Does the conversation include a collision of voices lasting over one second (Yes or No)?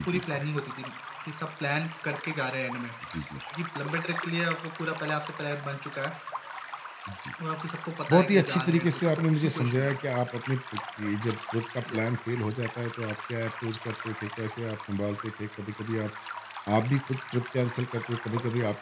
Yes